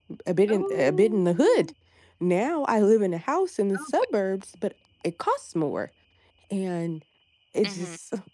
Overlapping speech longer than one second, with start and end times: 0.5-1.7

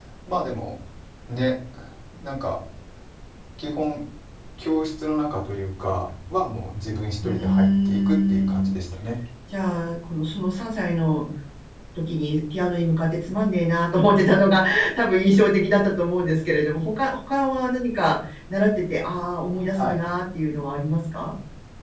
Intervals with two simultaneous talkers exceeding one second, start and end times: 7.2-8.7

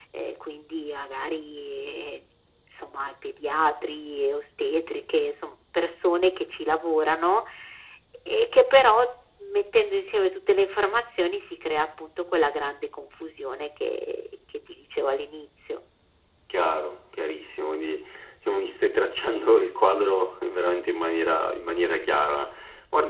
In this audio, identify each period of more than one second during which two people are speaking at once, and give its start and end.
none

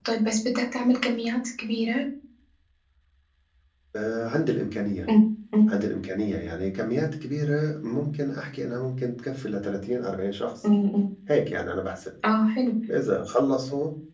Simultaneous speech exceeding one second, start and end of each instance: none

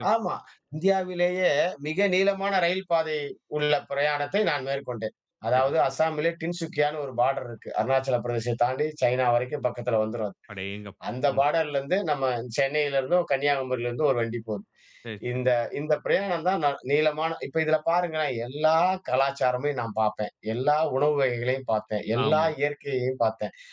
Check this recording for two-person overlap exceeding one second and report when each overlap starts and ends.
none

